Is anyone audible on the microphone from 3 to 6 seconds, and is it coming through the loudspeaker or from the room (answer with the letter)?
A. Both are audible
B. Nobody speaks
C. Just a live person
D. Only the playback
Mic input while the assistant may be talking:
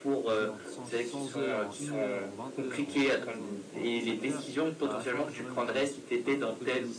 A